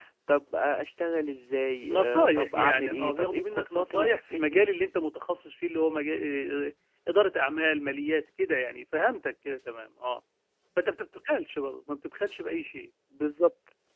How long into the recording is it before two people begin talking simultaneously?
1.9 s

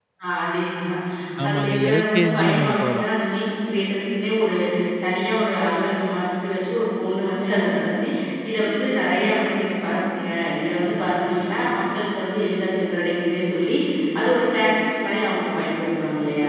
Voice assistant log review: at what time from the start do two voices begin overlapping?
1.5 s

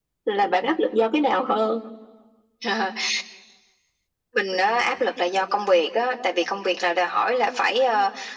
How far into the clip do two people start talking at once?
none

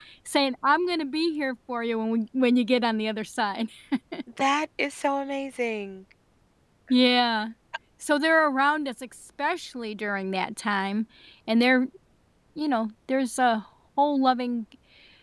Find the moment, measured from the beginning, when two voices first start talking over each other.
none

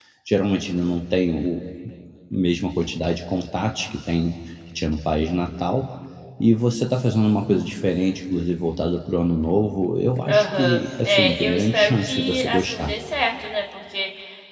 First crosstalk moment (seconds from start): 10.3 s

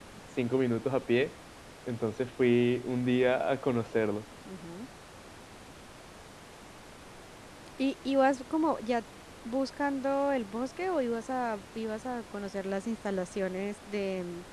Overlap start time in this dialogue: none

